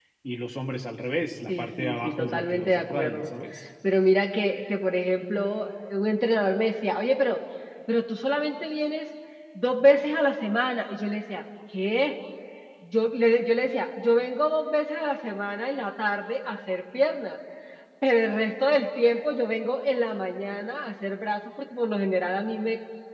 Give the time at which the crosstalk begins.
1.5 s

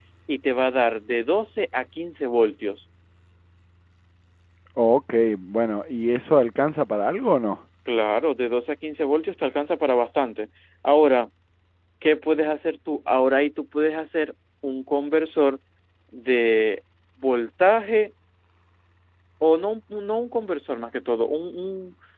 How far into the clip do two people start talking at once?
none

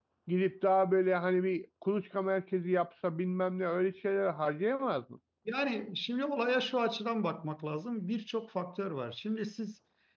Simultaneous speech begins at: none

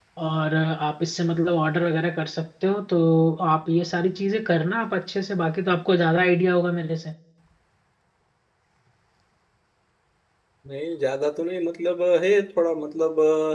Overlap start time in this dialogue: none

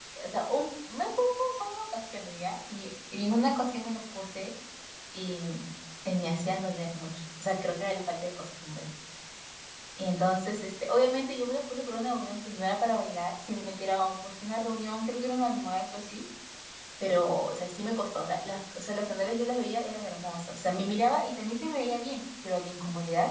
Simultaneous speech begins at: none

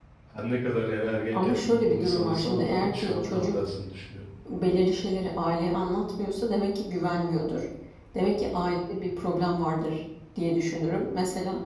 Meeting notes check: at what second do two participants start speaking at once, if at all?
1.3 s

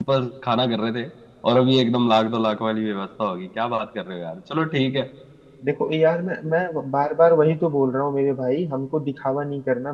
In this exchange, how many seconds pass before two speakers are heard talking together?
none

